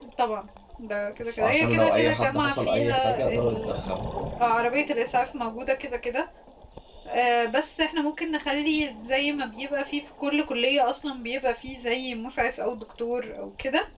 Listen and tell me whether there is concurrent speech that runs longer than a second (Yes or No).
Yes